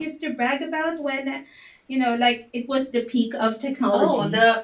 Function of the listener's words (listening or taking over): taking over